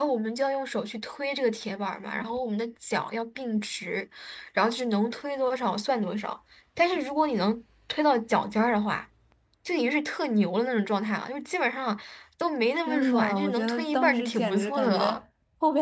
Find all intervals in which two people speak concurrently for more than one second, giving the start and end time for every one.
12.9-15.2

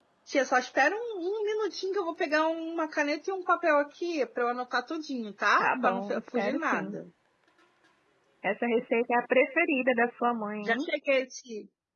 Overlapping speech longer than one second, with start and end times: 5.6-7.0

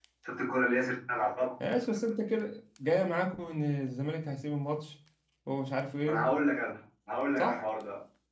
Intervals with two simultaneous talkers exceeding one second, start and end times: none

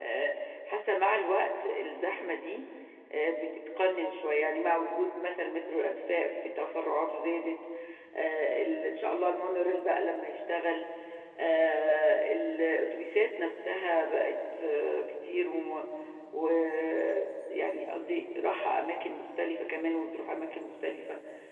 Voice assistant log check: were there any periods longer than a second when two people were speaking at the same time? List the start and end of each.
none

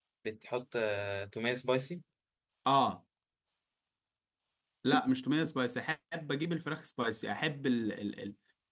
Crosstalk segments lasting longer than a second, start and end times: none

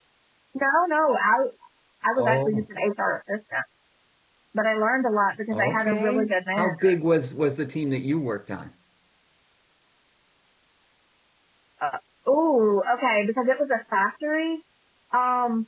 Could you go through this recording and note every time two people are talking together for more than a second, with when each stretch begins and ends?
5.5-6.9

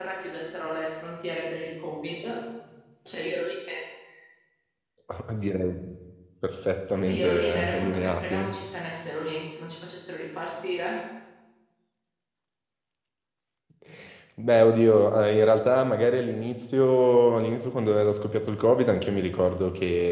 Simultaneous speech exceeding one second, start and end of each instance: 6.9-8.6

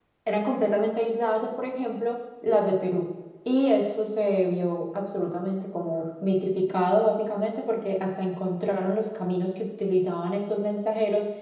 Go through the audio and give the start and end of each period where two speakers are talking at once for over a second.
none

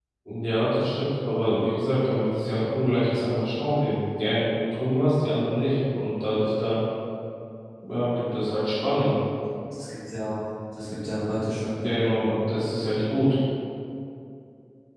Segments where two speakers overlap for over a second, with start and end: none

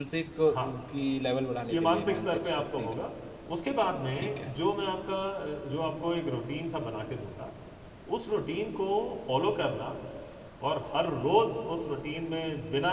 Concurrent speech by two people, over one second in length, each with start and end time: 1.7-2.9

